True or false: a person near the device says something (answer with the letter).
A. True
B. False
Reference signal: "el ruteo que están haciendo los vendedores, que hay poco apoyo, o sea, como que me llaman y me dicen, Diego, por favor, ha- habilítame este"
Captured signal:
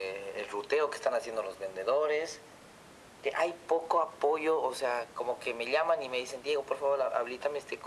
B